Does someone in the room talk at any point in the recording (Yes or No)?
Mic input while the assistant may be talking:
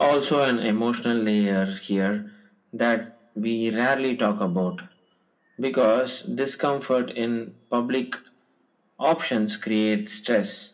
No